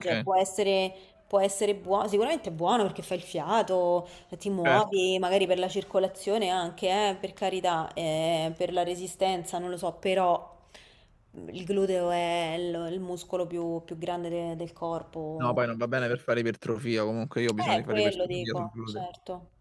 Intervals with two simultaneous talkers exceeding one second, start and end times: 17.7-19.0

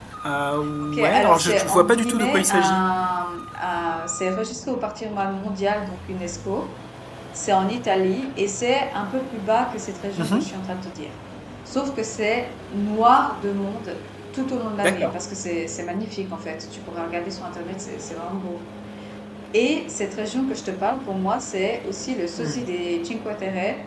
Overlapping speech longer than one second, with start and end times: 1.0-2.8

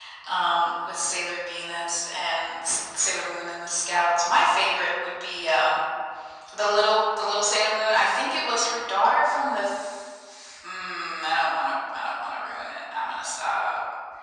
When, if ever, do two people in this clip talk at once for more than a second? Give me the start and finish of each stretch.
none

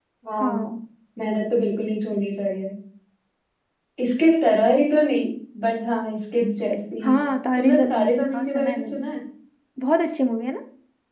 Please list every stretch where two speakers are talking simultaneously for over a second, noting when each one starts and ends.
7.6-9.0

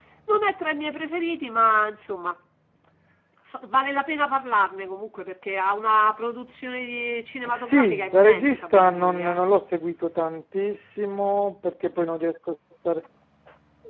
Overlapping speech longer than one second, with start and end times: 7.5-9.4

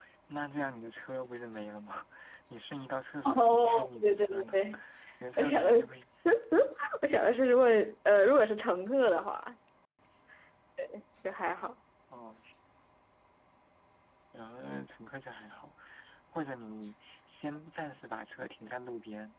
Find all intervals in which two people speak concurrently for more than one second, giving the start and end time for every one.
3.2-4.6

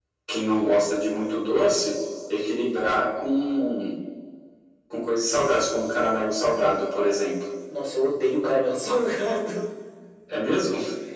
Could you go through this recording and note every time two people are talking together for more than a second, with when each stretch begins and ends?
none

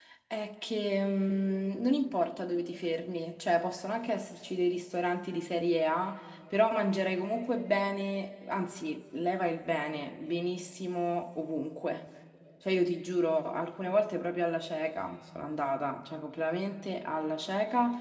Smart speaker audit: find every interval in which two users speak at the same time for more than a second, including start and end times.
none

